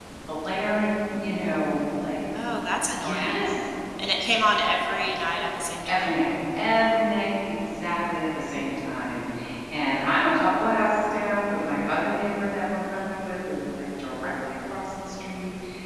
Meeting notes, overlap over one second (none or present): none